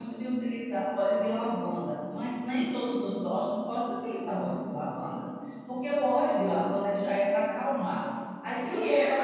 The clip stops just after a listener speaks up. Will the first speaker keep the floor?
No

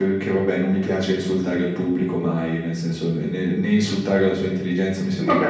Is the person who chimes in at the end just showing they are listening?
No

